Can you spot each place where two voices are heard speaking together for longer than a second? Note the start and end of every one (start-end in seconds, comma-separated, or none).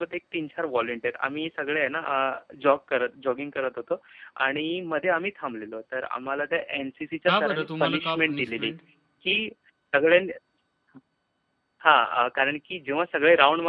7.3-8.7